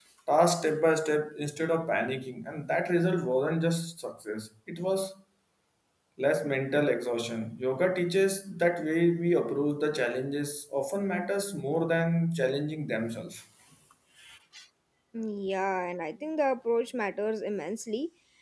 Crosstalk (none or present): none